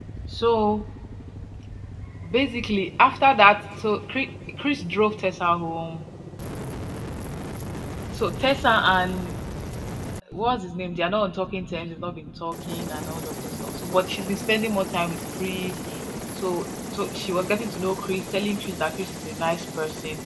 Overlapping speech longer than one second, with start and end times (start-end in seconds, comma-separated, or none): none